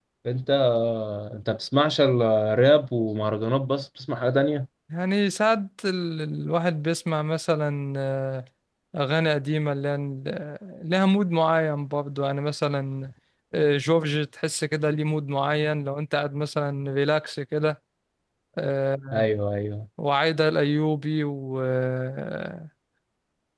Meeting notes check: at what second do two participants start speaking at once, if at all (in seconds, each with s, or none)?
none